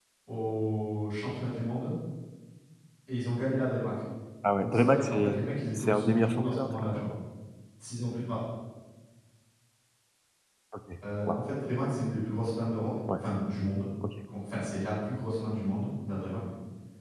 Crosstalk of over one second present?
Yes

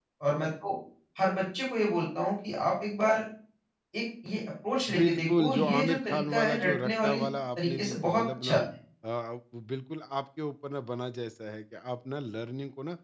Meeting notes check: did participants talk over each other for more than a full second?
Yes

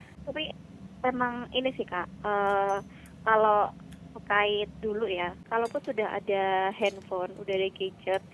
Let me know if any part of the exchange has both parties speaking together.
No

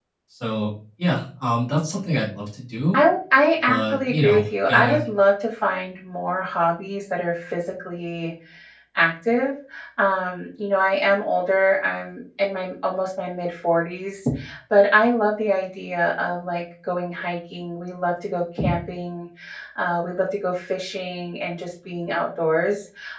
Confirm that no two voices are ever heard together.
No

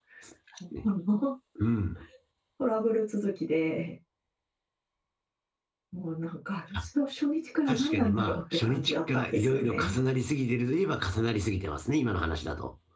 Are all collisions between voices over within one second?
No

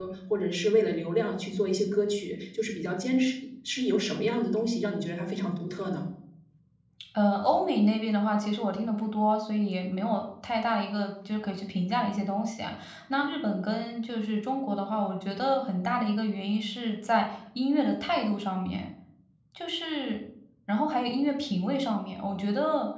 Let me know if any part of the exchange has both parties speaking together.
No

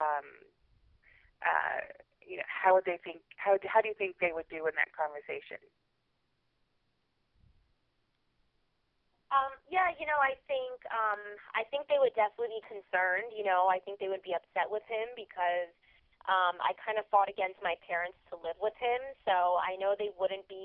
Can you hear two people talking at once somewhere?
No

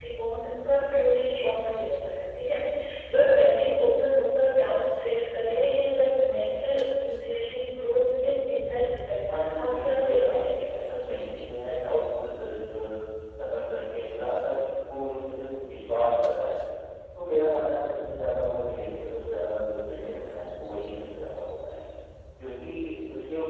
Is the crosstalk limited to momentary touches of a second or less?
No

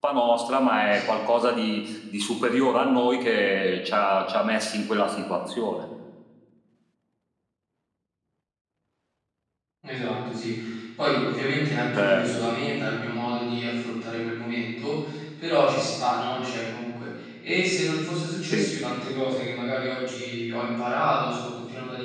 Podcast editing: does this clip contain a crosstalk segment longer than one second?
No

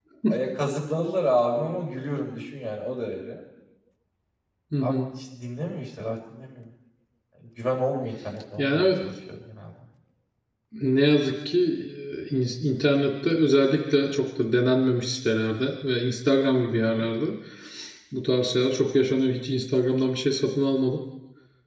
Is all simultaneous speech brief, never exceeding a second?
Yes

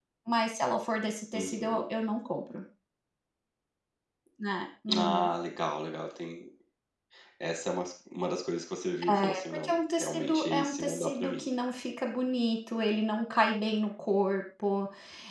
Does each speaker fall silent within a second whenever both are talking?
No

